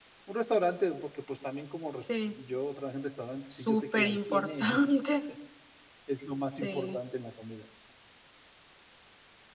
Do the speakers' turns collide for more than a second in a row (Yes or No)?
Yes